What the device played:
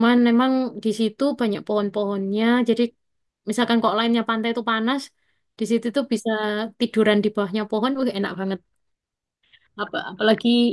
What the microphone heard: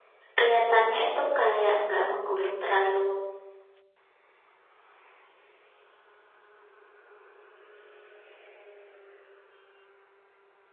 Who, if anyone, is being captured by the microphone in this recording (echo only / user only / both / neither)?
user only